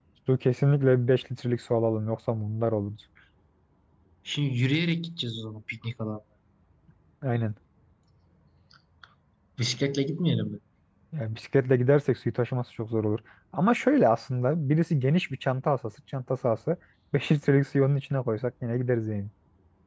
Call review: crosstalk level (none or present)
none